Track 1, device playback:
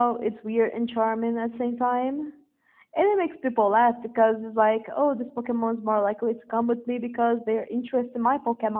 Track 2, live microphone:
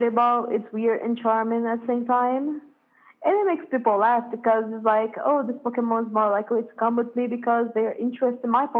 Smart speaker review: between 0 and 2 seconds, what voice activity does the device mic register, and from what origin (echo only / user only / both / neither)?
echo only